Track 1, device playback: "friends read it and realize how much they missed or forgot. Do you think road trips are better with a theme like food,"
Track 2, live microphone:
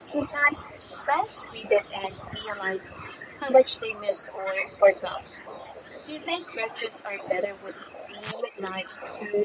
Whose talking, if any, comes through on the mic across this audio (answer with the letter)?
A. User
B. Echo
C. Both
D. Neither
B